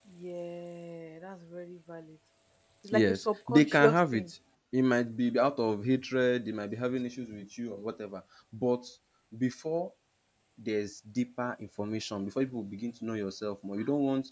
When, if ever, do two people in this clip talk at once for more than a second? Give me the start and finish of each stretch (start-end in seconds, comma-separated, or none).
2.9-4.3